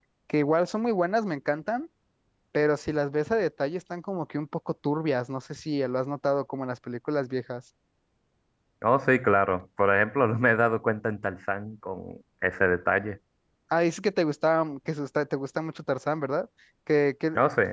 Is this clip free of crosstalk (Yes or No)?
Yes